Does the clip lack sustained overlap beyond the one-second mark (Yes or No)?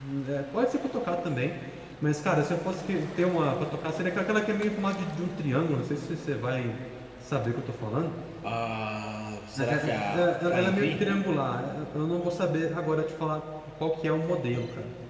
No